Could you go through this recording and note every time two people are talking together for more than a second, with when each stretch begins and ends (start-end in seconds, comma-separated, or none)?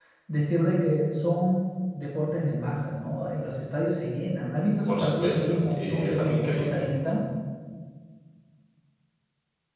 4.9-6.8